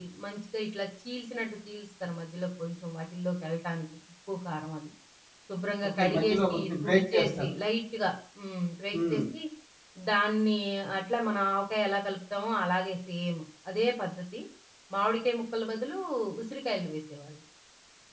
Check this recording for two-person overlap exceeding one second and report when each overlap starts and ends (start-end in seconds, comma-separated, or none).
6.0-7.5